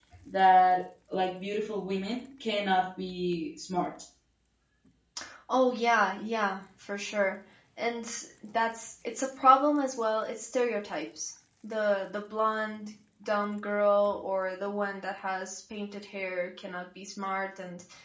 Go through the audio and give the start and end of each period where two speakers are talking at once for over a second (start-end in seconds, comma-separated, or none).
none